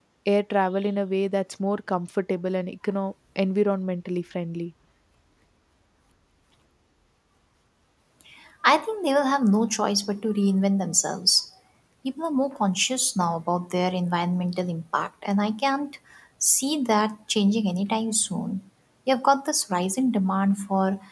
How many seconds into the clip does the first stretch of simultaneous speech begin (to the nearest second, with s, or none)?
none